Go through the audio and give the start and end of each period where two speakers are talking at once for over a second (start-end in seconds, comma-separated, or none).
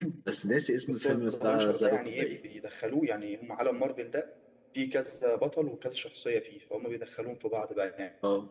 0.8-2.3